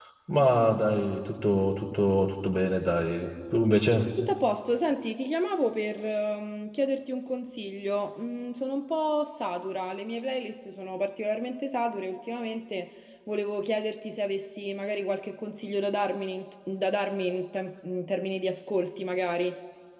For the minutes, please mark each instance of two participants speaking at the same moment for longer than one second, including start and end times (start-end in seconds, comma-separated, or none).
none